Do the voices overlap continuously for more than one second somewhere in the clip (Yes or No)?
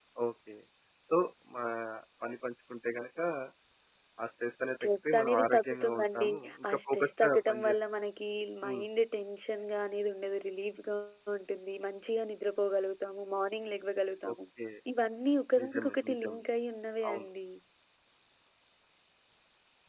Yes